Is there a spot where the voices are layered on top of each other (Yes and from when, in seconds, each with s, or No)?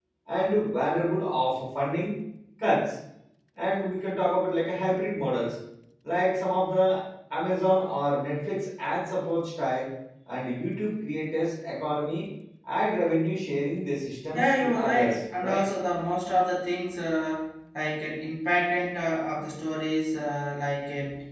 Yes, from 14.3 s